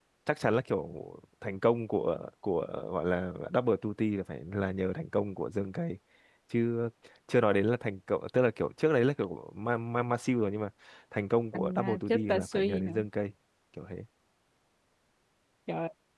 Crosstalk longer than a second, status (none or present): present